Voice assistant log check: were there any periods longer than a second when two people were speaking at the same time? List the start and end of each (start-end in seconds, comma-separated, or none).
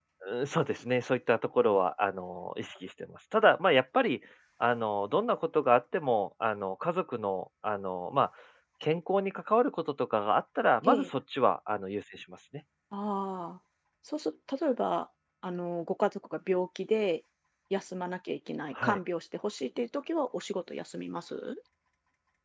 none